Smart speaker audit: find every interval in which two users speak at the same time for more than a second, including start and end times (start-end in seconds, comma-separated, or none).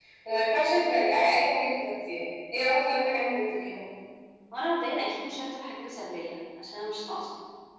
none